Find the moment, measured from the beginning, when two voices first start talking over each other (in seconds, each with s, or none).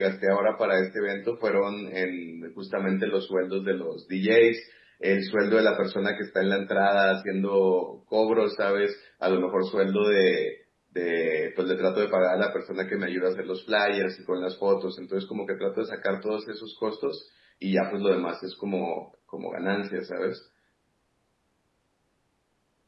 none